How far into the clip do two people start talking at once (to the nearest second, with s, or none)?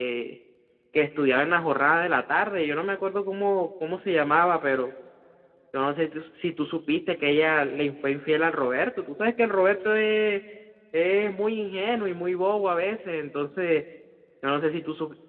none